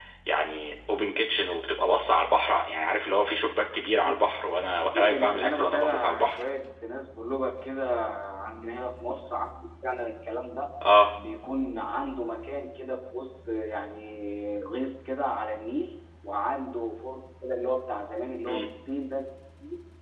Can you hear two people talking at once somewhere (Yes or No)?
Yes